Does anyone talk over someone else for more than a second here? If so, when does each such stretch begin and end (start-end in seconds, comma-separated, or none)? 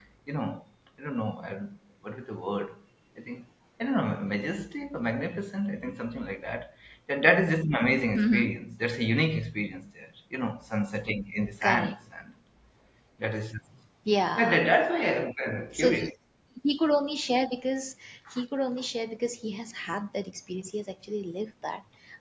none